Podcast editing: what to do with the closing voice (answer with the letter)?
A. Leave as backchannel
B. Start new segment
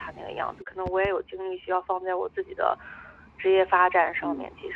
B